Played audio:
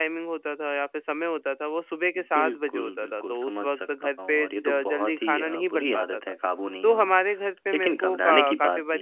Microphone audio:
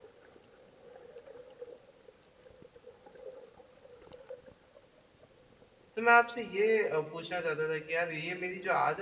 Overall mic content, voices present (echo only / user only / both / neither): user only